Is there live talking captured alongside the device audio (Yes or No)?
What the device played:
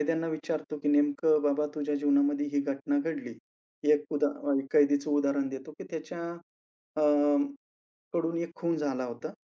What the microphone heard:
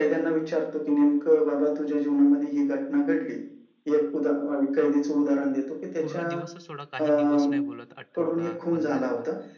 Yes